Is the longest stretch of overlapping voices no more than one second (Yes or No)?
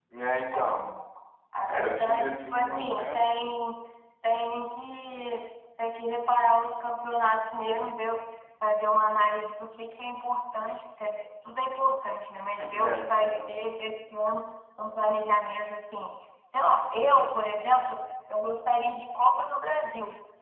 No